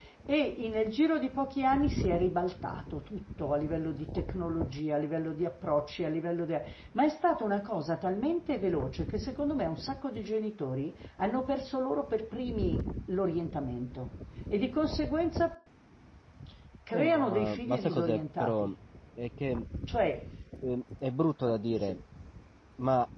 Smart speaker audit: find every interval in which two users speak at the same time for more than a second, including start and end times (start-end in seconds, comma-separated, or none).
16.9-18.7